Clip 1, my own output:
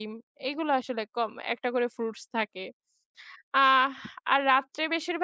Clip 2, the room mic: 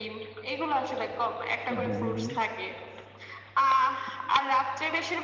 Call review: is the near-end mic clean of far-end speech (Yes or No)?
No